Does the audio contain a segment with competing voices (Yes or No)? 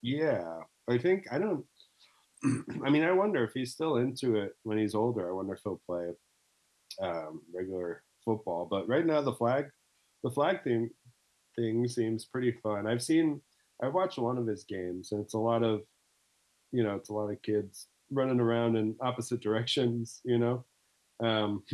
No